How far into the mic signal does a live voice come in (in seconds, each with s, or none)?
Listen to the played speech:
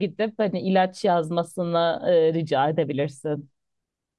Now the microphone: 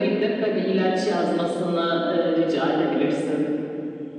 none